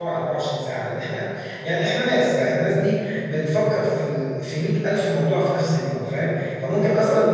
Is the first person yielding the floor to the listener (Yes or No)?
No